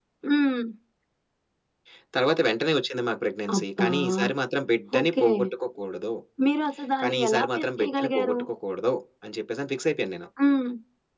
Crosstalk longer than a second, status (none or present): present